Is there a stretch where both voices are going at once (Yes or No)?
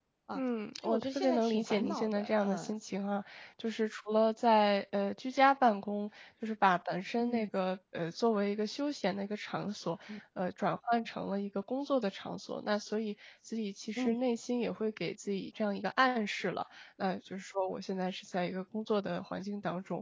Yes